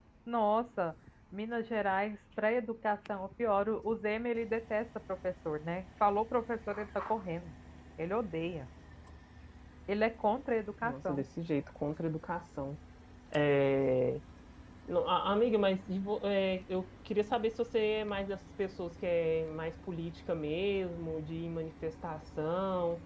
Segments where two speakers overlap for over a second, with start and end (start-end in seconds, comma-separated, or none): none